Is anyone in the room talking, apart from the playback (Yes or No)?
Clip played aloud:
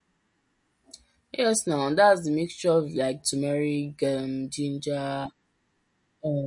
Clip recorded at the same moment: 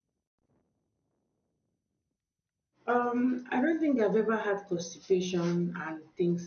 Yes